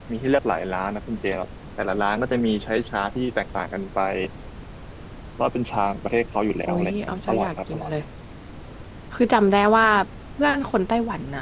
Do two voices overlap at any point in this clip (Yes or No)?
Yes